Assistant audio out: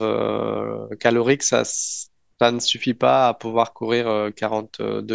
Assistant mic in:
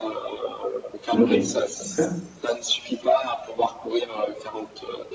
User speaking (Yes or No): Yes